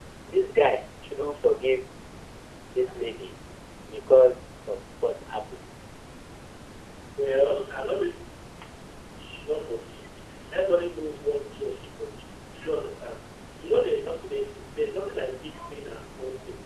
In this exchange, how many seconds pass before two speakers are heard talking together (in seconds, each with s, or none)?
none